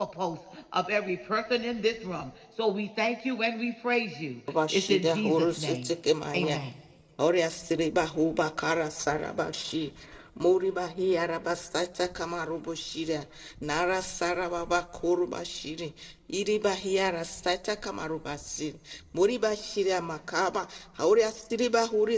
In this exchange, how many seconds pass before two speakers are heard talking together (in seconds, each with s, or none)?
4.5 s